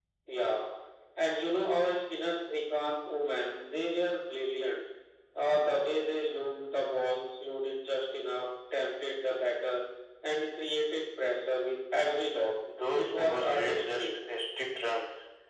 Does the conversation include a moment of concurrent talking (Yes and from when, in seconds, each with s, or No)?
Yes, from 13.0 s